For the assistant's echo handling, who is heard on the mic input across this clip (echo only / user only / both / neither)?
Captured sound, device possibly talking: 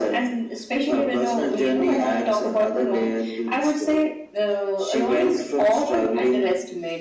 echo only